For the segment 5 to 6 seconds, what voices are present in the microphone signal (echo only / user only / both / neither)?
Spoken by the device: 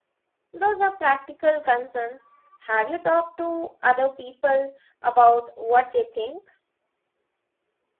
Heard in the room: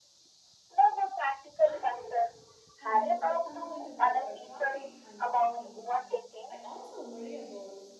both